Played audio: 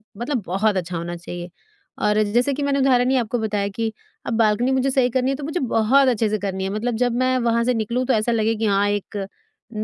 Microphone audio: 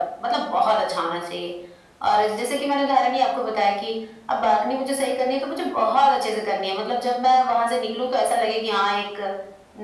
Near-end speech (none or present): none